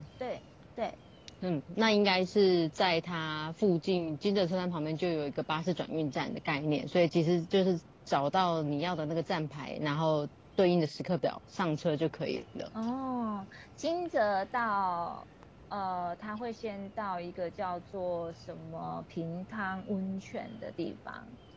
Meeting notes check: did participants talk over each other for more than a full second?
No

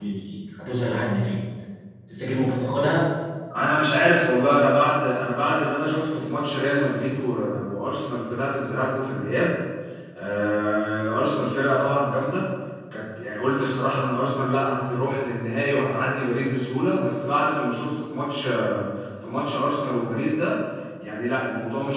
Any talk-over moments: No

